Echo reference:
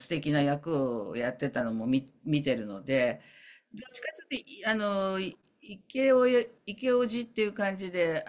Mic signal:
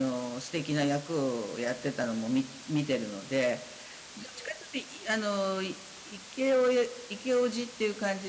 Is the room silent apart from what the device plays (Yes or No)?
Yes